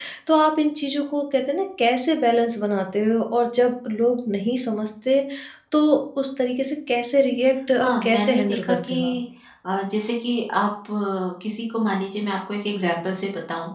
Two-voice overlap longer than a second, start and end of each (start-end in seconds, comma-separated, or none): 7.8-9.2